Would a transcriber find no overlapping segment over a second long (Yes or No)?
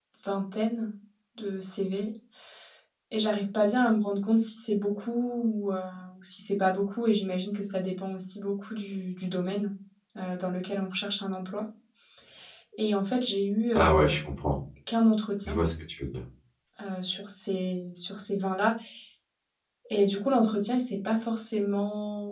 Yes